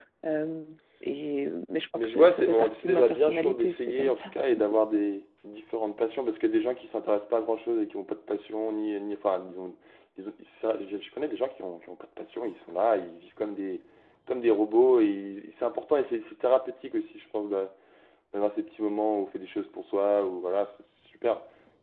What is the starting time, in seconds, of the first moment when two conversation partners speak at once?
2.0 s

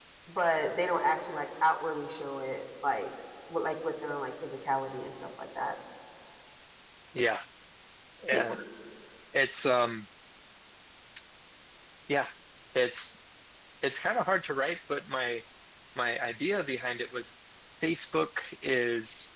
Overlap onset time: none

